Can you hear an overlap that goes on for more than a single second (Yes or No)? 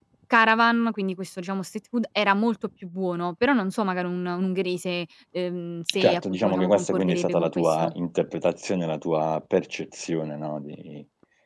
Yes